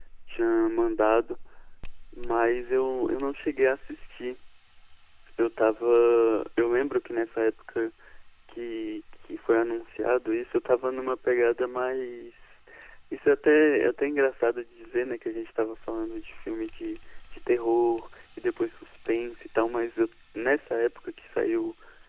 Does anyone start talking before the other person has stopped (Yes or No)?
No